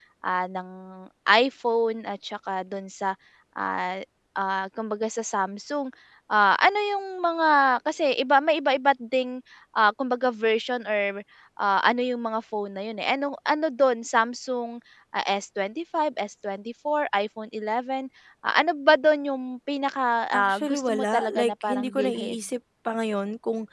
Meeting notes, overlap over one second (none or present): present